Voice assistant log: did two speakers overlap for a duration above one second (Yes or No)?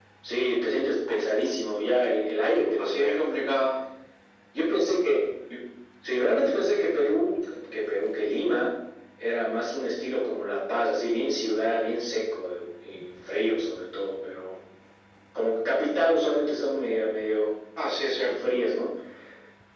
No